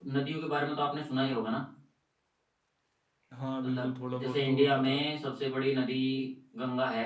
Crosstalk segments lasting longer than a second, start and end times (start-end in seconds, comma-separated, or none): 3.6-5.0